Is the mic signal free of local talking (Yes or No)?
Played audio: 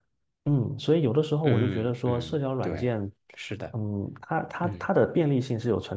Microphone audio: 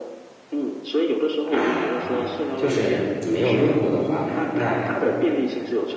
No